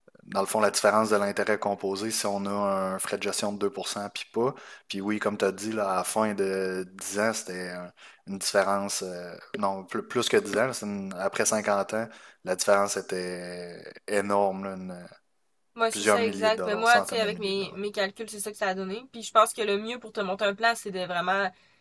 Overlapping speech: Yes, from 15.9 s

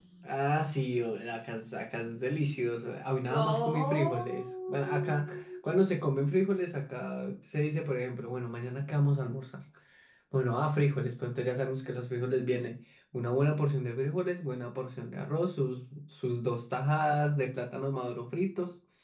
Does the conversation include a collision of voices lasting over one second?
Yes, from 3.3 s

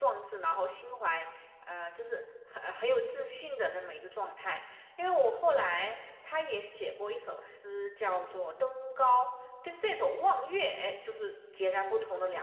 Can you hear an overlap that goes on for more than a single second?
No

